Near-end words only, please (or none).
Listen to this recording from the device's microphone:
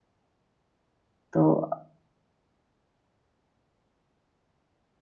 तो